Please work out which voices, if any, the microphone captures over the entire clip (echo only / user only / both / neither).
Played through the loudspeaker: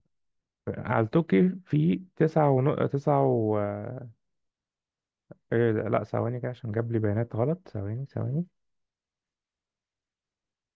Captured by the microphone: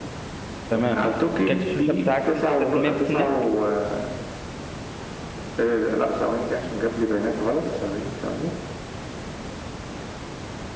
both